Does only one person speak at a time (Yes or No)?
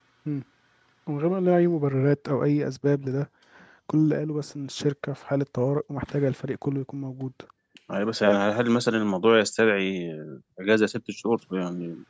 Yes